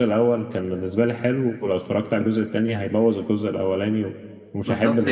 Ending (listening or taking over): taking over